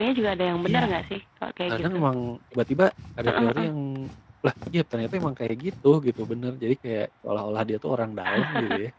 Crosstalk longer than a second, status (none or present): none